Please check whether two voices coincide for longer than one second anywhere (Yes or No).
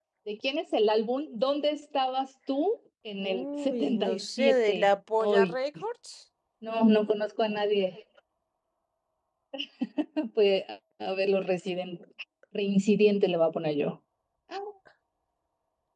Yes